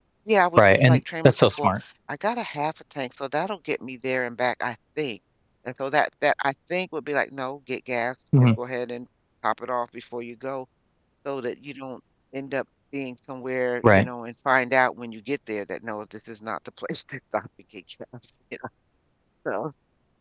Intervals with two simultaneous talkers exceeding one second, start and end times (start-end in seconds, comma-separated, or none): 0.6-1.8